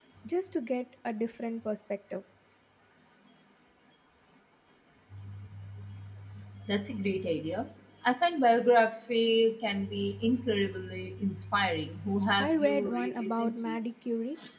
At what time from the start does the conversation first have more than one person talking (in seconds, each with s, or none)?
12.4 s